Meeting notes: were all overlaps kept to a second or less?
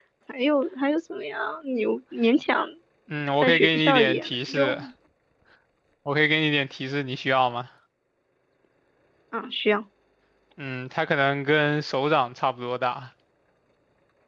No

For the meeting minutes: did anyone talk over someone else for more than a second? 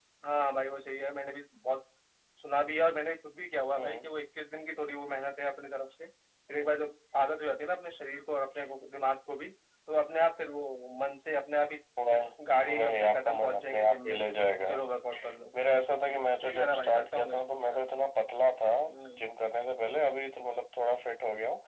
Yes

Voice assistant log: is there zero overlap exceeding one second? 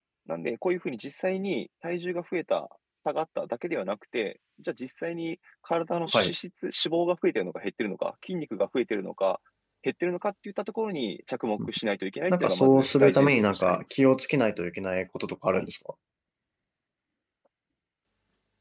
No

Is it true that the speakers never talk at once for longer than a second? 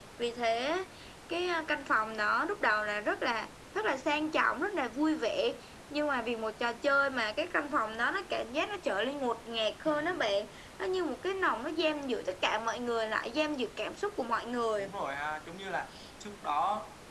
Yes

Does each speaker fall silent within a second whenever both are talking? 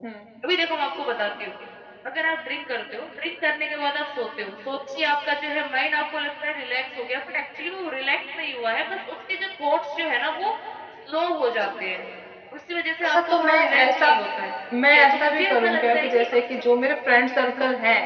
No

